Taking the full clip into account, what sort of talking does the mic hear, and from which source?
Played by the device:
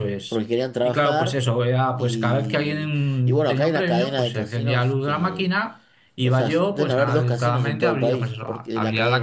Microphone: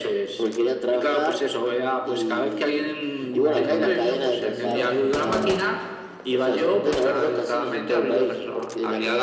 both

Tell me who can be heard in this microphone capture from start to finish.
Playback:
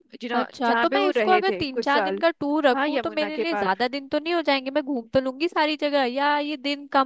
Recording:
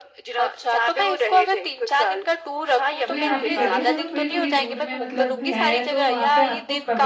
both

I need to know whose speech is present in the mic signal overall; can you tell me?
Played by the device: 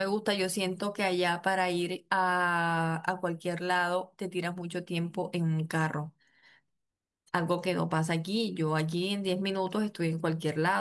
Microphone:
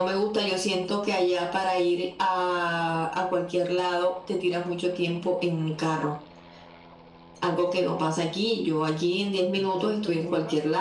both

